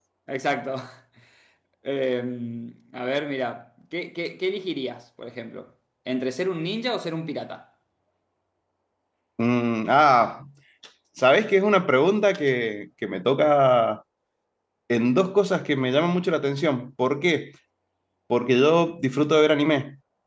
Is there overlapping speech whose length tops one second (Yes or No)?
No